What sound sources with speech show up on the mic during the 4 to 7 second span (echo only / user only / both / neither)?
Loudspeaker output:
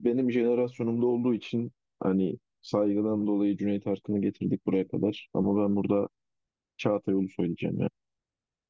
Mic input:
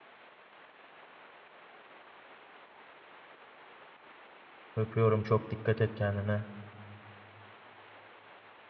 user only